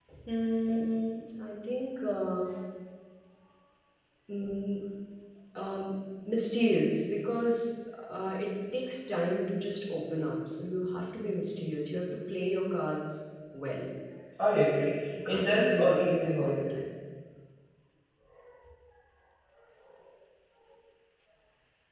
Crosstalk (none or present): present